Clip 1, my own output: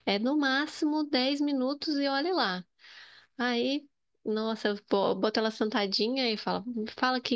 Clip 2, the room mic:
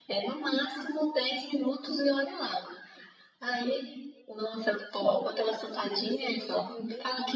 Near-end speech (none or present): present